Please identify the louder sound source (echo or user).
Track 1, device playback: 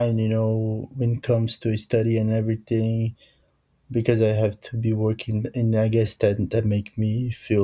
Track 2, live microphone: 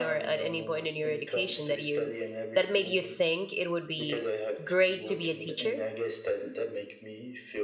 user